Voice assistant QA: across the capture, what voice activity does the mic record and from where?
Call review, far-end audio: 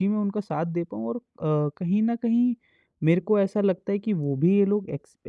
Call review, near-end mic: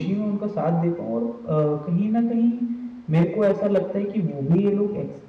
echo only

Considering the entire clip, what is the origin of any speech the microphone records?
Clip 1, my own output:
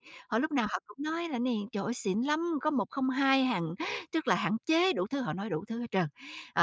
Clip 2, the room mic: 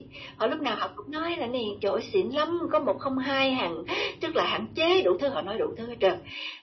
echo only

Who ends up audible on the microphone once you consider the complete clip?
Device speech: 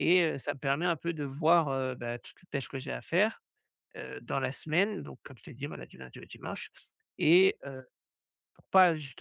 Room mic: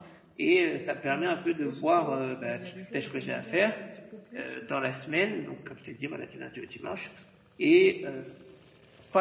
both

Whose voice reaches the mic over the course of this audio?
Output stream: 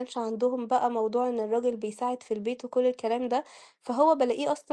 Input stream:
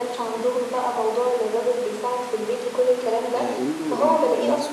both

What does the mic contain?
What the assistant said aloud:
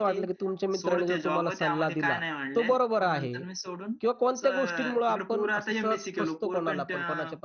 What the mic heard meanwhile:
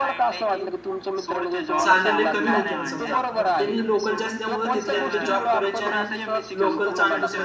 both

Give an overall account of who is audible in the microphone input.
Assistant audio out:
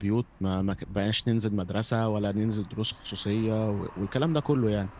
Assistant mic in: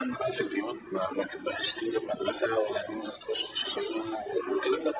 echo only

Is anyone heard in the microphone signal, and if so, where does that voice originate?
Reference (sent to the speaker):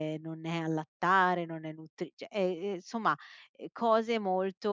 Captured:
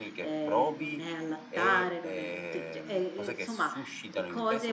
both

